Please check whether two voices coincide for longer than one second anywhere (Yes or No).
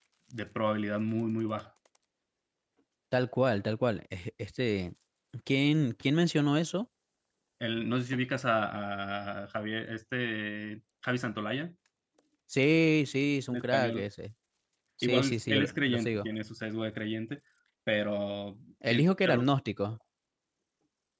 Yes